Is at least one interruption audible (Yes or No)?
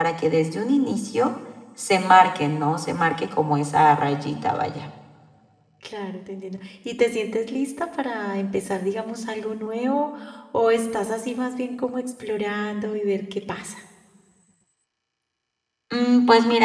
No